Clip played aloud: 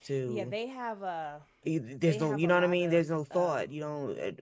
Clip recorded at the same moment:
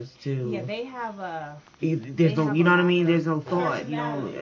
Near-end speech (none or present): present